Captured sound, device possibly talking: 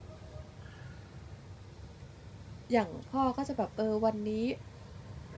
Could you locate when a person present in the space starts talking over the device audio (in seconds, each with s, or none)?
2.7 s